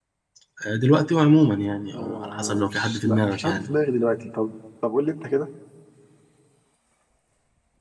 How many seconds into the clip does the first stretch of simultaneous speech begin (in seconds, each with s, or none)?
1.9 s